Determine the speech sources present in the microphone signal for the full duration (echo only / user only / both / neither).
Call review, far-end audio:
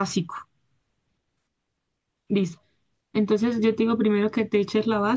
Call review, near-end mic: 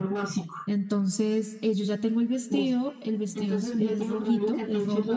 both